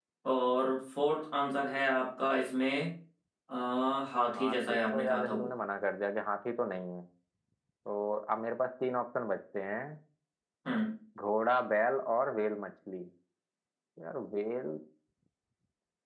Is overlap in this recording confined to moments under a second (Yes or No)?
No